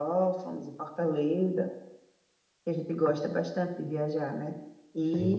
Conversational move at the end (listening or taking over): listening